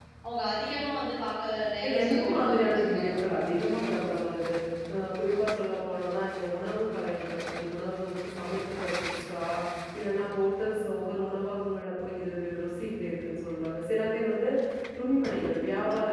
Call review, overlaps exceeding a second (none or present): present